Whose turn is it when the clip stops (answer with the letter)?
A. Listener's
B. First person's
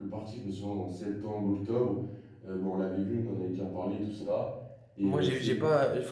A